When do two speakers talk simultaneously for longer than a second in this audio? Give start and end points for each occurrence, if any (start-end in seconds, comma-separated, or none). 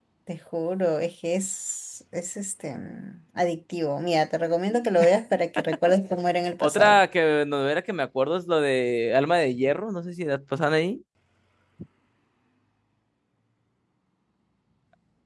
none